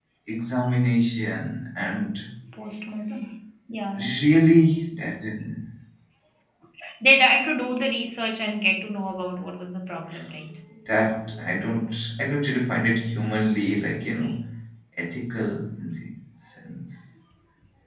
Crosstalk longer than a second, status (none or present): none